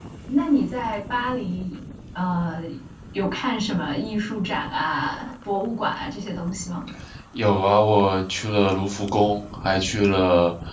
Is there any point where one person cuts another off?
No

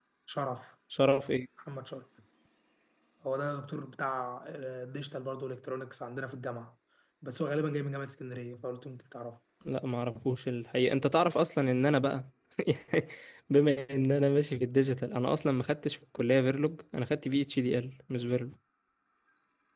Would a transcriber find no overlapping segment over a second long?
Yes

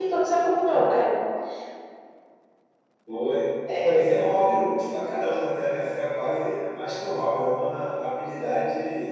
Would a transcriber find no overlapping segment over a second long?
Yes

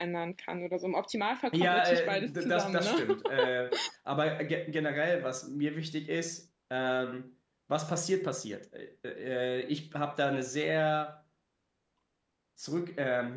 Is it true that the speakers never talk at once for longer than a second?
No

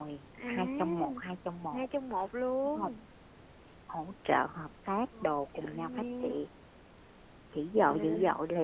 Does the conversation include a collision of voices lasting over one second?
Yes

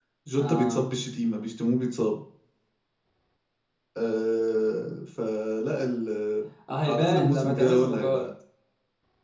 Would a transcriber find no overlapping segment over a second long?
No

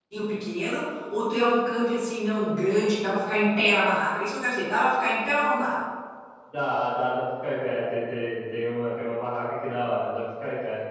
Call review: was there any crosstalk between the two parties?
No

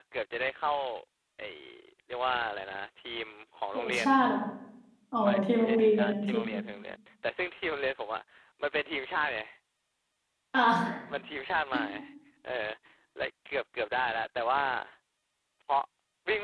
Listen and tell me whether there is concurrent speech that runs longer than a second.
Yes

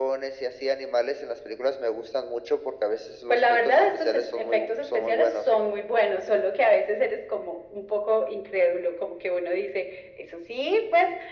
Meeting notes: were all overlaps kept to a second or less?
No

